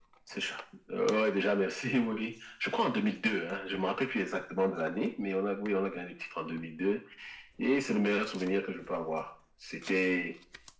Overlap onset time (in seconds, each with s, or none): none